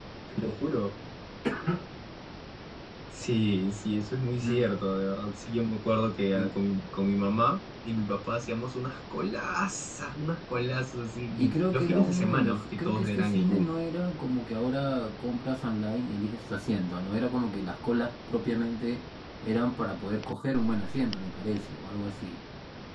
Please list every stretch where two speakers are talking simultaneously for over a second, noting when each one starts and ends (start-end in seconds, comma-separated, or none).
11.4-13.7